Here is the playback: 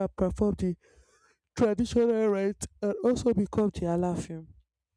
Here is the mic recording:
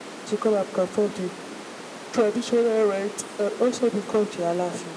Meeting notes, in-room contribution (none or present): none